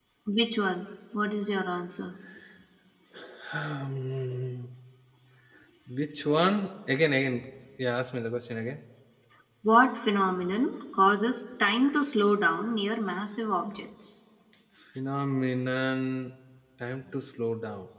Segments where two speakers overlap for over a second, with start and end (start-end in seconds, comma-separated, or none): none